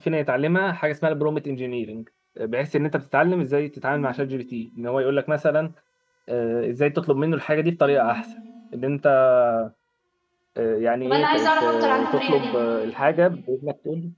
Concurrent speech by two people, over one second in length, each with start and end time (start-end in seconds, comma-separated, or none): 11.0-12.6